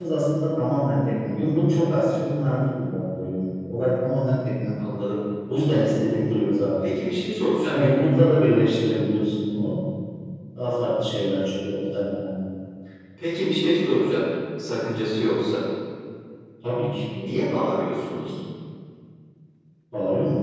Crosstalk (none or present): none